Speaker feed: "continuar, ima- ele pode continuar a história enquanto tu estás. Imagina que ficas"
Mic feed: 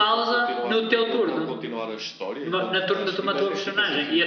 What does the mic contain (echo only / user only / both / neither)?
both